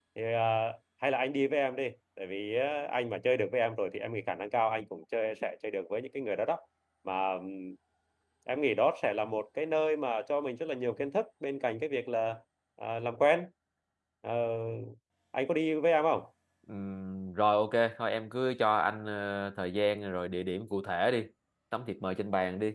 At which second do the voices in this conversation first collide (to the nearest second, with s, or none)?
none